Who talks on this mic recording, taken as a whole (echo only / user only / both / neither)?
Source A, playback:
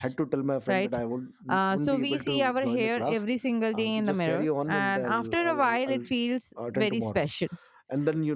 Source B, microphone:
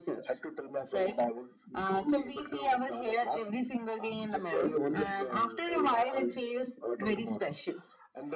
echo only